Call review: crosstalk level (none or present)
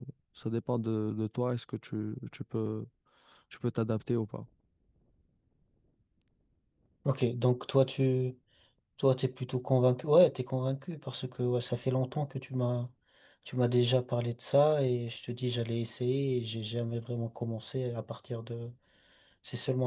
none